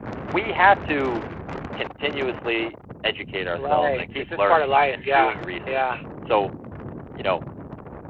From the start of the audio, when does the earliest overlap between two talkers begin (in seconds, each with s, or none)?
3.6 s